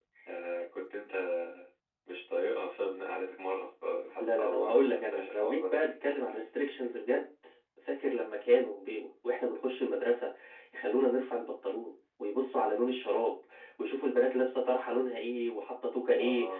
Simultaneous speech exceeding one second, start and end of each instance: 4.2-5.7

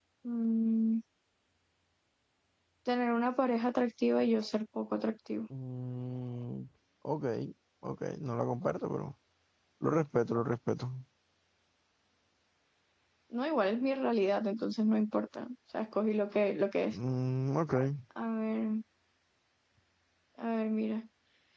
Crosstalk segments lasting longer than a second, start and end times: none

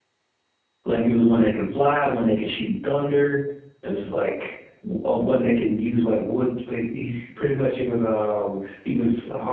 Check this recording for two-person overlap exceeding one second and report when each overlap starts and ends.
none

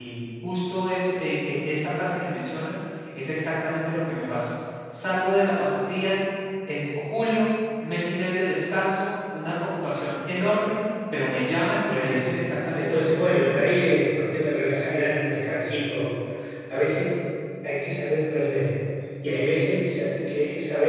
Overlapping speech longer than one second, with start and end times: 11.8-13.4

